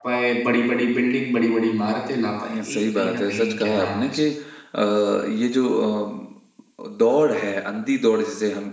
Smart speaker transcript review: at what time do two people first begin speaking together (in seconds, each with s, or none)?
2.5 s